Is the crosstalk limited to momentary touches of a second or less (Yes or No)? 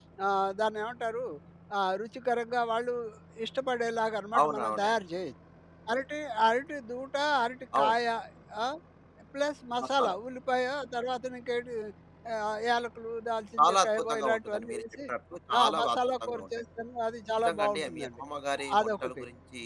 No